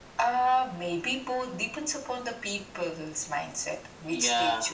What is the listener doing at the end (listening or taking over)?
taking over